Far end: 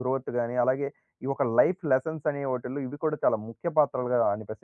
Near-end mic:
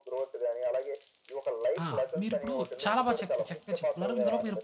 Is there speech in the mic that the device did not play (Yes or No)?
Yes